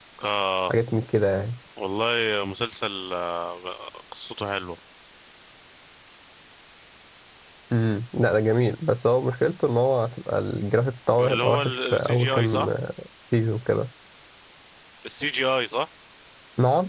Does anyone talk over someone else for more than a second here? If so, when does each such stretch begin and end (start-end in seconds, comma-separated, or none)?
11.2-12.7